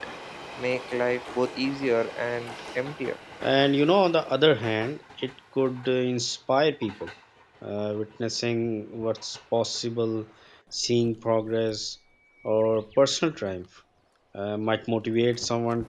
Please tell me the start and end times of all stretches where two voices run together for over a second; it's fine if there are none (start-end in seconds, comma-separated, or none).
none